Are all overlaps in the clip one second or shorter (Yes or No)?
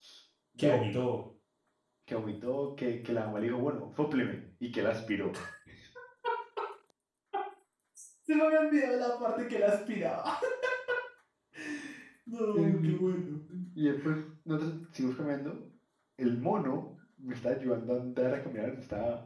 Yes